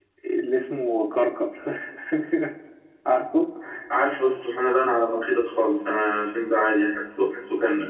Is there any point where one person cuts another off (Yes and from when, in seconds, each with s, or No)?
No